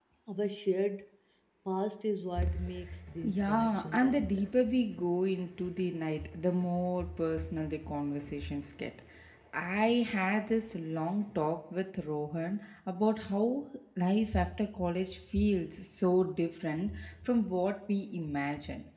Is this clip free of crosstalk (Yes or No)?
No